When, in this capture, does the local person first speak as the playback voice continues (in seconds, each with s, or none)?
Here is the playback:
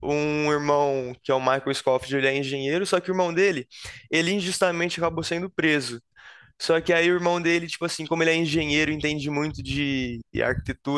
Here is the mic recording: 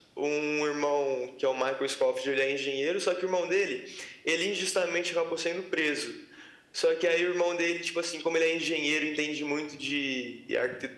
none